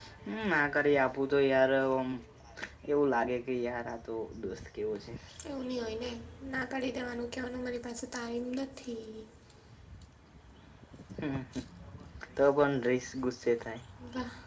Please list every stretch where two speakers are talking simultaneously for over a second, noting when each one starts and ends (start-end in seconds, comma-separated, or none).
none